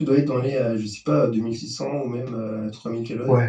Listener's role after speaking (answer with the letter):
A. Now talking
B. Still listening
A